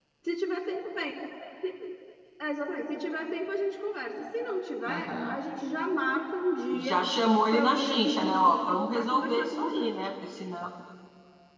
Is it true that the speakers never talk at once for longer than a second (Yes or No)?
No